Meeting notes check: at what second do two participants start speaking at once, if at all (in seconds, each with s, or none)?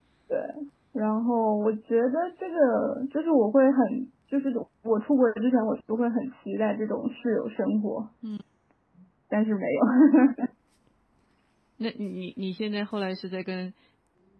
none